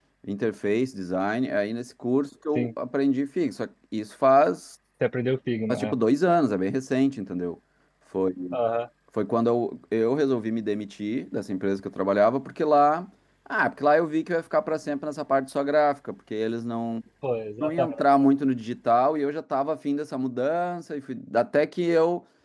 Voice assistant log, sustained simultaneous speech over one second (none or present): none